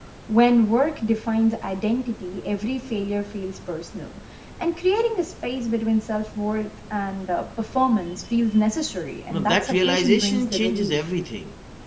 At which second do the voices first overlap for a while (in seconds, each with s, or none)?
9.3 s